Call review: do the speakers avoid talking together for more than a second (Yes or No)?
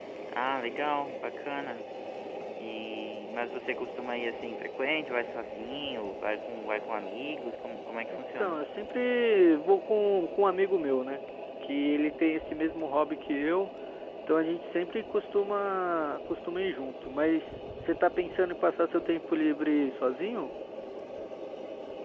Yes